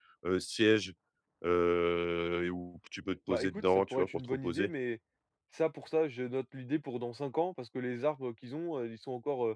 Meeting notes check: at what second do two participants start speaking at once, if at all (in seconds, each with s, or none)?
3.3 s